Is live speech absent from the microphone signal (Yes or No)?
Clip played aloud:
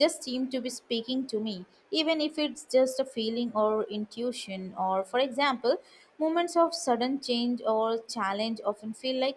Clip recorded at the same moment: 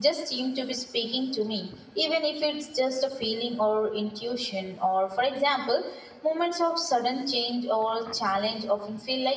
Yes